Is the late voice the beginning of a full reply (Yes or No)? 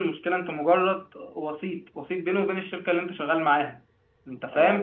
Yes